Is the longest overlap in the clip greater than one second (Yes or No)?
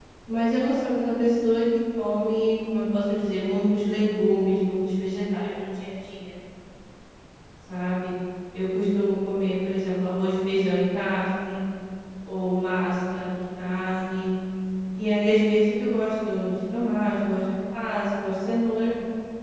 No